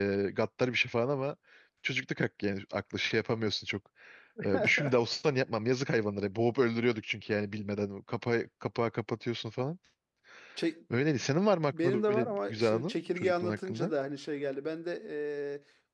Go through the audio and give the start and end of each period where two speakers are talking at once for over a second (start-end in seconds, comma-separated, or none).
11.7-13.9